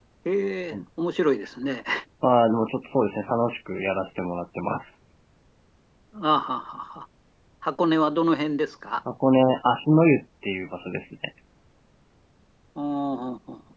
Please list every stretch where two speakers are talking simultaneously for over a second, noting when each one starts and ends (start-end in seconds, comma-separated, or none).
none